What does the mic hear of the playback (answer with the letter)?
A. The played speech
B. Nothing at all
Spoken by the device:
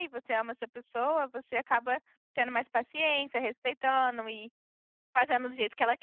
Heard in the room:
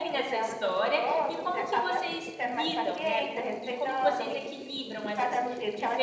A